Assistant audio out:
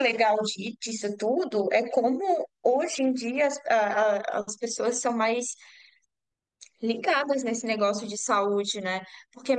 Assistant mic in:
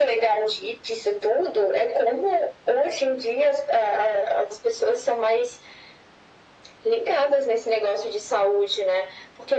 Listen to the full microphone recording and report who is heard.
echo only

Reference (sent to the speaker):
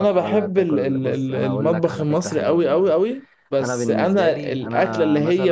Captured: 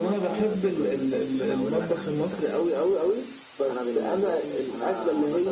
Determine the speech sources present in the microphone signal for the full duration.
echo only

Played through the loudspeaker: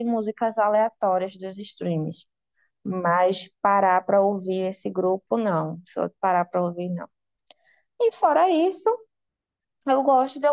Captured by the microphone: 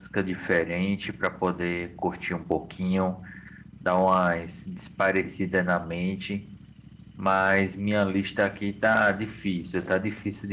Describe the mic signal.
user only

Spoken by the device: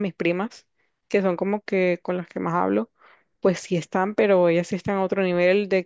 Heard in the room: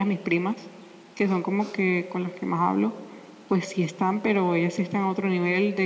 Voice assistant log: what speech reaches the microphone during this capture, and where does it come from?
echo only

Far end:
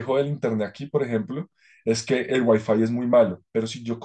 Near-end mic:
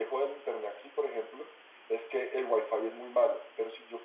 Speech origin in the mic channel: echo only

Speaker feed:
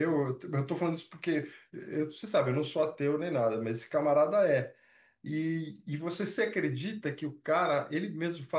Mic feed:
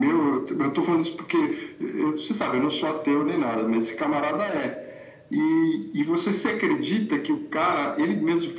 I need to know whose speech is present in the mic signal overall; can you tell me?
echo only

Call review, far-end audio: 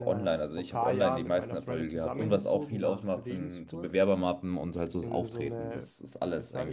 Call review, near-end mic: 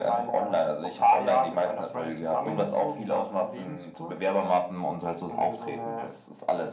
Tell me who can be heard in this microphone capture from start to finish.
echo only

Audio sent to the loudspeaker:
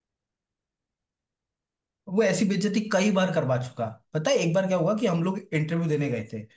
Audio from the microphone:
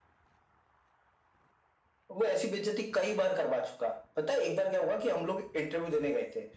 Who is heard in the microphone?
echo only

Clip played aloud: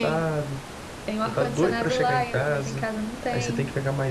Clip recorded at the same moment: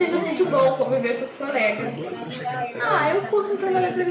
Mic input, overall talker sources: both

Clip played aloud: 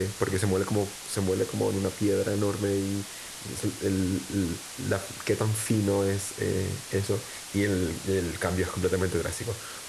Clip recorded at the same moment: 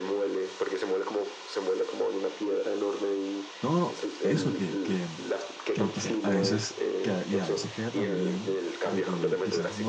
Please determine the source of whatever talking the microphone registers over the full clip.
both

